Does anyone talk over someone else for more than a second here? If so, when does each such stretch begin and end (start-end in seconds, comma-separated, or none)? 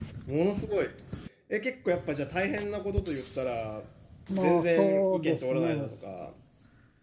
4.3-5.9